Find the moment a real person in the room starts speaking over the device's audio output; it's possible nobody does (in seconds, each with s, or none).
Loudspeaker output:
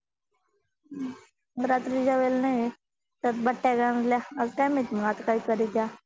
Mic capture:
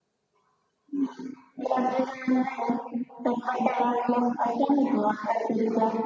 none